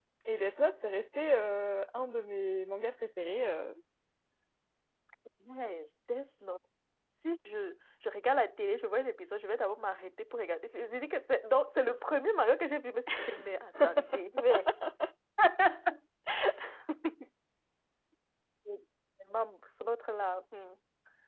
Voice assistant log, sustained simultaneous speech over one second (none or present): none